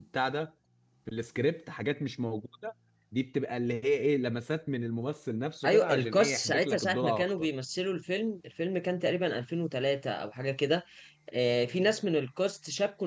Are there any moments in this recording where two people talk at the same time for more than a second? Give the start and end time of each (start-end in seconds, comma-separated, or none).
5.7-7.5